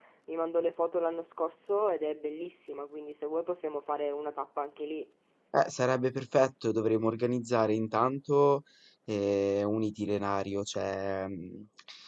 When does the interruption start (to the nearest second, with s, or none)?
none